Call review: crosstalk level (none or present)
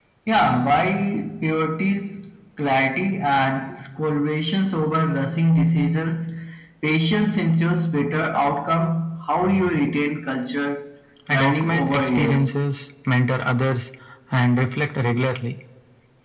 present